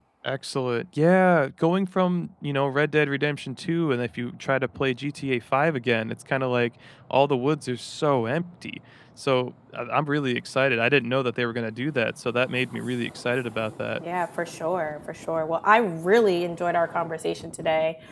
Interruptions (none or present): none